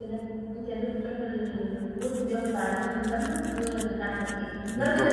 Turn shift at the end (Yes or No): No